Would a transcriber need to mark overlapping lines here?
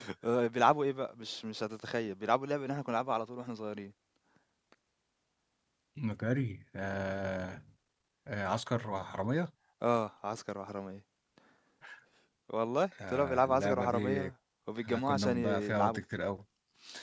Yes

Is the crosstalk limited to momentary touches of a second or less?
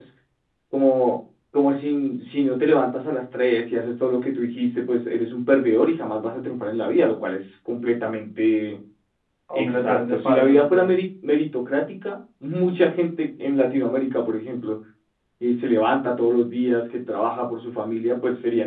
No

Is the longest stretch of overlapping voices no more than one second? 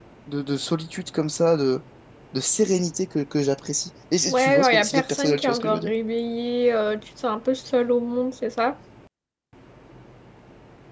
No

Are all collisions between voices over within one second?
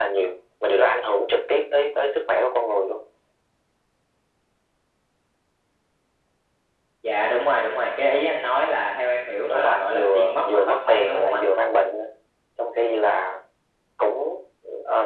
No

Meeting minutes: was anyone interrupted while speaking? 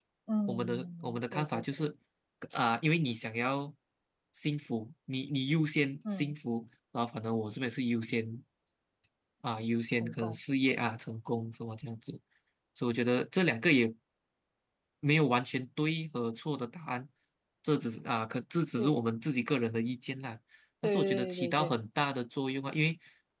Yes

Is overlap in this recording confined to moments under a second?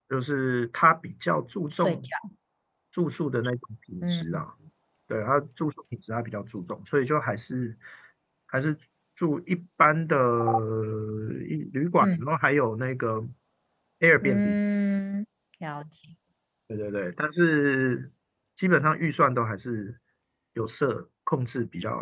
Yes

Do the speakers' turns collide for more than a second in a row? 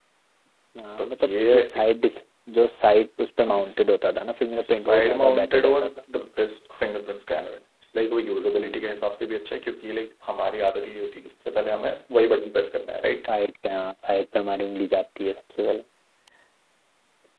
Yes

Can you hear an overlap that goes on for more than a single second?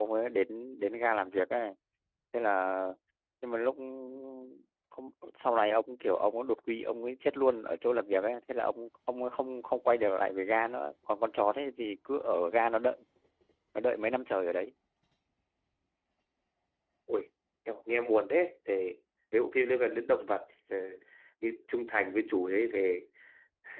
No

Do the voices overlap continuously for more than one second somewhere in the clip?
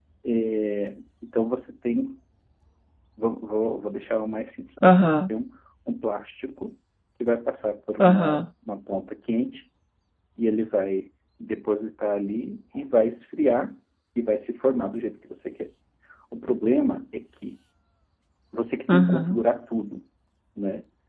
No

